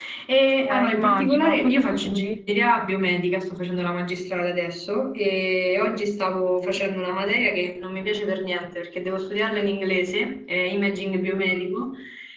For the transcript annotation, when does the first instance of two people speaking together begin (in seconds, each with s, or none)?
0.7 s